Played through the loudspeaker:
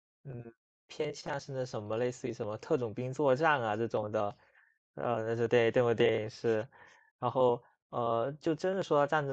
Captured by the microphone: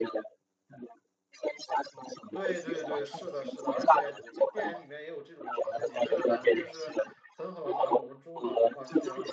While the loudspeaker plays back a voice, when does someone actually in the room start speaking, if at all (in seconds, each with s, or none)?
2.3 s